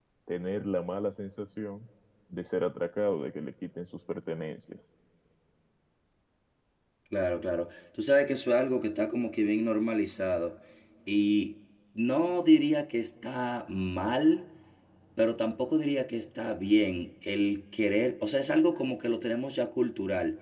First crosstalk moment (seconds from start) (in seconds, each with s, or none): none